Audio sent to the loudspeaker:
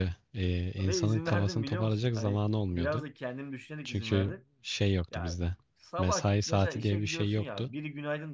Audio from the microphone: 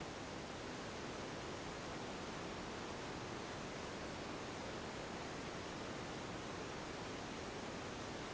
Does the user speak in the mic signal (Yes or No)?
No